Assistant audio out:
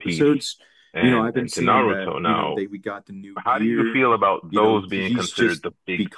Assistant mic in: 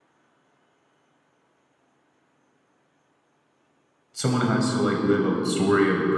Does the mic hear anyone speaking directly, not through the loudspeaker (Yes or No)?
Yes